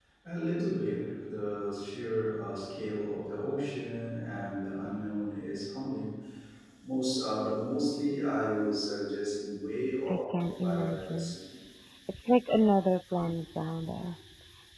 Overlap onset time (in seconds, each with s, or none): 10.1 s